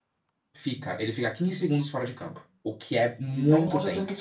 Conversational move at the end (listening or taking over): taking over